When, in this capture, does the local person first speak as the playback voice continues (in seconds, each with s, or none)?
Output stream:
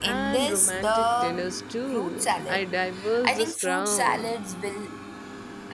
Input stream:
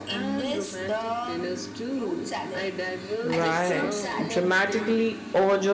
3.2 s